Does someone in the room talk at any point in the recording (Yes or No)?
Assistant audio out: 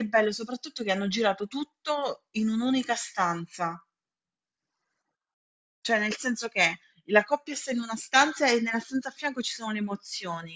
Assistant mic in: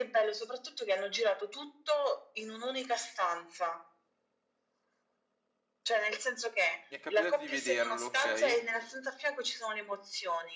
Yes